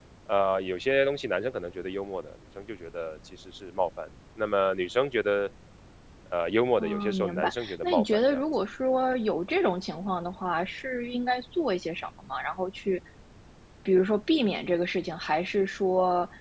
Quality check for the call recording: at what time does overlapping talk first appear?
6.8 s

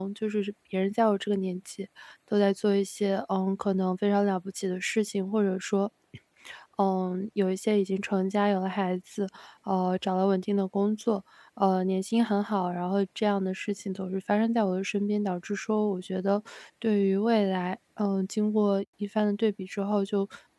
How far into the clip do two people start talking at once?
none

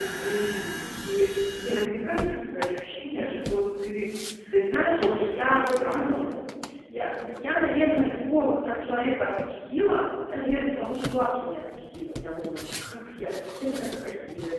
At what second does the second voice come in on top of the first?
4.6 s

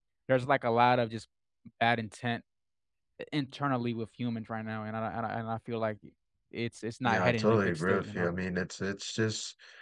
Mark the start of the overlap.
7.0 s

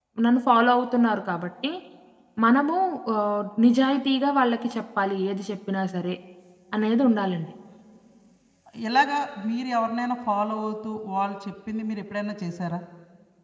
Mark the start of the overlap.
none

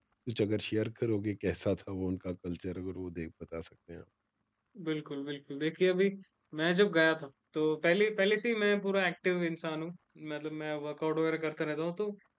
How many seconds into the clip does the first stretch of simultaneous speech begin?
none

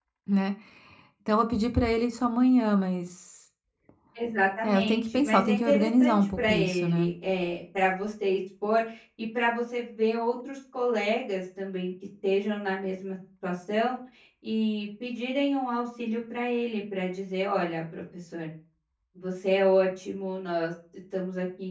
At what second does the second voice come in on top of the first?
4.6 s

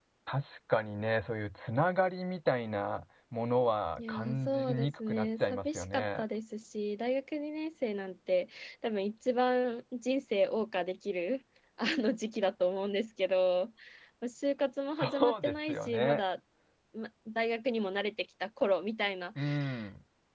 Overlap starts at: 4.0 s

